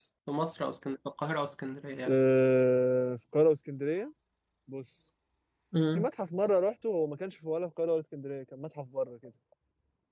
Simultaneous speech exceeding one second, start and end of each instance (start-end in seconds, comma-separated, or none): none